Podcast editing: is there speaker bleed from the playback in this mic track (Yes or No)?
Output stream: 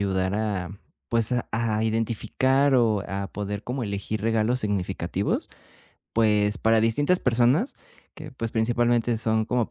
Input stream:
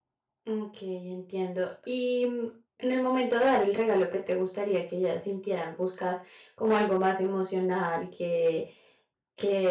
No